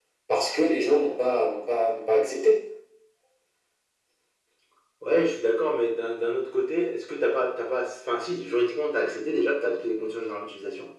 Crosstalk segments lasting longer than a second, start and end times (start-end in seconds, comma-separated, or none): none